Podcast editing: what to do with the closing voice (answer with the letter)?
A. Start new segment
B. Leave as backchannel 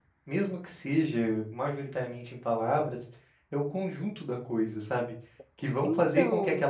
B